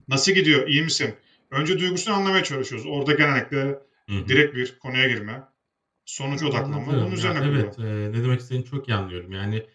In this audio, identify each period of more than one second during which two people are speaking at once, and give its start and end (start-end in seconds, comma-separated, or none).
6.3-7.6